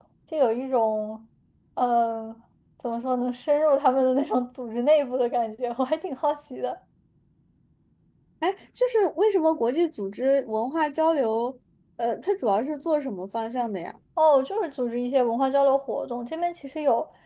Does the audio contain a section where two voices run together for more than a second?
No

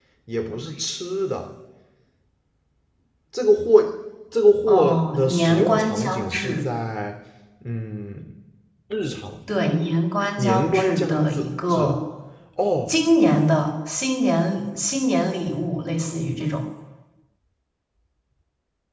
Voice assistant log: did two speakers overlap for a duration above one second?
Yes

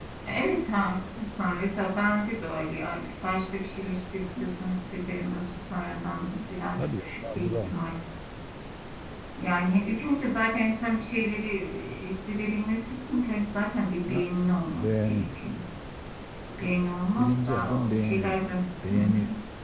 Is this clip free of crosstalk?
No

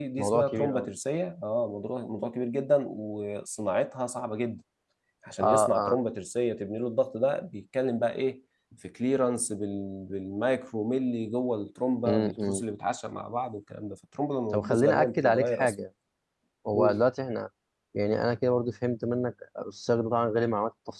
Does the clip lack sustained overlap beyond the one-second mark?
No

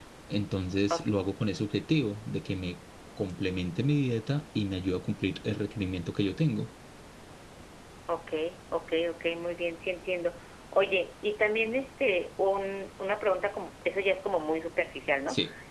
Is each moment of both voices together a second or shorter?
Yes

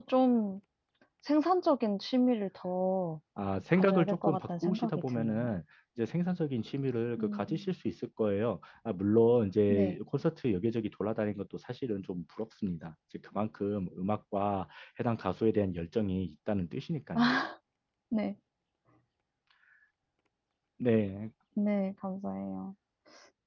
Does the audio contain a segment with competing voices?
Yes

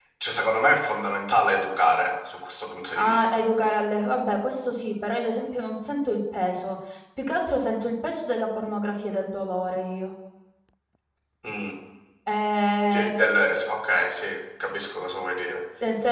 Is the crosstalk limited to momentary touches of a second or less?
Yes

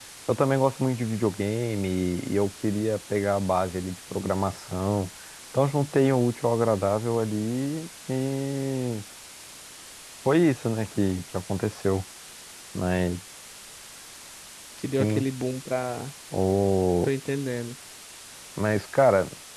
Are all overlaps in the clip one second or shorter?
Yes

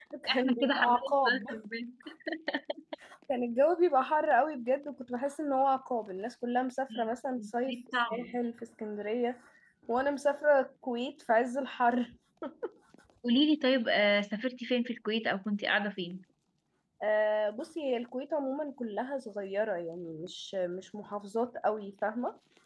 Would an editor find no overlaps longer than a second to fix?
No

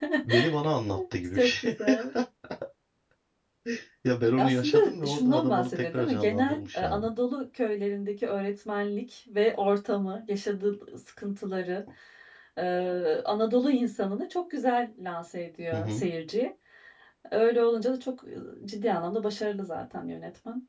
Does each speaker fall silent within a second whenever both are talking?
No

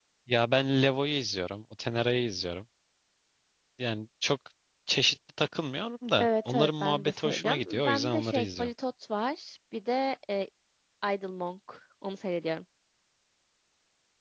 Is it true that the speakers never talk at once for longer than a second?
No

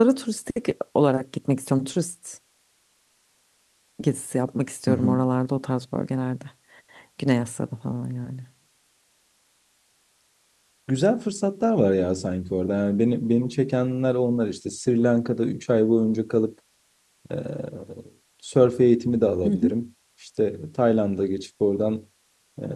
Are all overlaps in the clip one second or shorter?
Yes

